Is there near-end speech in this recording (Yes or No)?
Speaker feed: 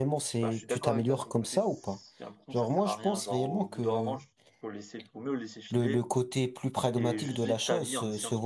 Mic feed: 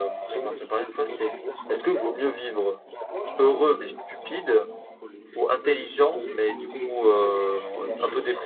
Yes